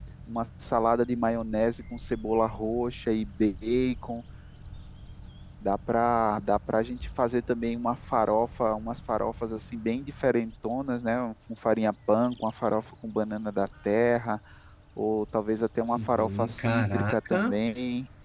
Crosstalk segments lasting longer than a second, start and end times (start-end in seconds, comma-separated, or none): 15.8-17.5